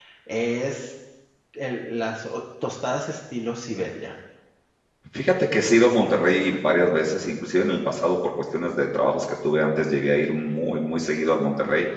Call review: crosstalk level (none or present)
none